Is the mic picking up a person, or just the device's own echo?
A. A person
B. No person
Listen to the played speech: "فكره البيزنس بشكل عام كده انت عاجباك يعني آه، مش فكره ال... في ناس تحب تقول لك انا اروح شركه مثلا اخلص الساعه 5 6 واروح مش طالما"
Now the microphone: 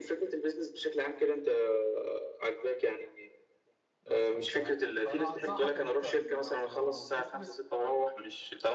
A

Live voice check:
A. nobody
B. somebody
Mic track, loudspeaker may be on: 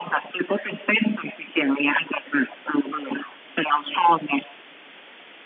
A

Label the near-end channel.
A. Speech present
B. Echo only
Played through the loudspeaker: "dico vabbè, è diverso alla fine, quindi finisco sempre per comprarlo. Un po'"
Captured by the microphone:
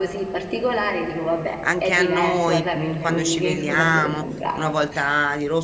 A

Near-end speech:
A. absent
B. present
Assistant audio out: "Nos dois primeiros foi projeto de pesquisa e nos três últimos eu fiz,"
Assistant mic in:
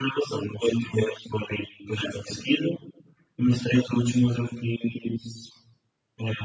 A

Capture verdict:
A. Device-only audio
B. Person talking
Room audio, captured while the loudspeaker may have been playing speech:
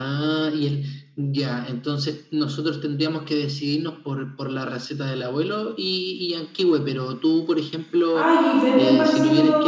B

